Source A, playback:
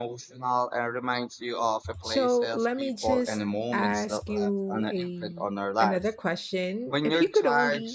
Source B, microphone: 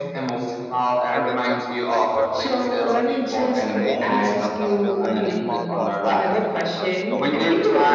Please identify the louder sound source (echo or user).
echo